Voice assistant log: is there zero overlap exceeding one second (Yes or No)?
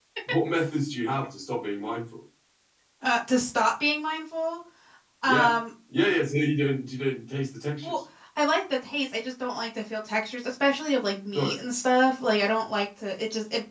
Yes